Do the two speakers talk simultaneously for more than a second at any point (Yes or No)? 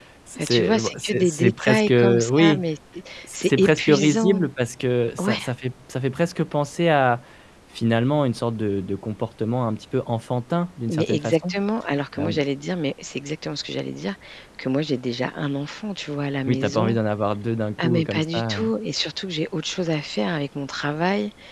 Yes